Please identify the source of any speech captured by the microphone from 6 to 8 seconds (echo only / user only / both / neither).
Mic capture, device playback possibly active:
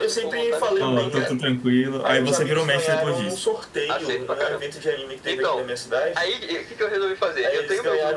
echo only